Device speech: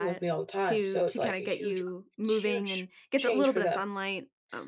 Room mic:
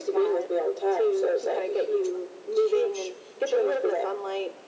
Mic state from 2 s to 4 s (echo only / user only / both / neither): echo only